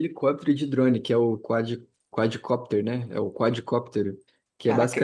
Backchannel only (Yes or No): Yes